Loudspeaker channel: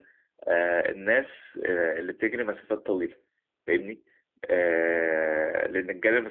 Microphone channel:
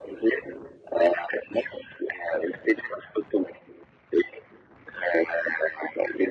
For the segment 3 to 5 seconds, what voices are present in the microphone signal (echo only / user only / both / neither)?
echo only